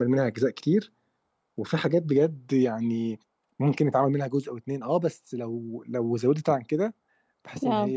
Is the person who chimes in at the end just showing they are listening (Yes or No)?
Yes